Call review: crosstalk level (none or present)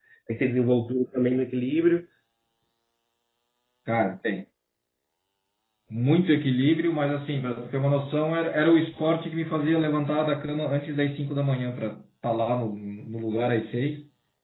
none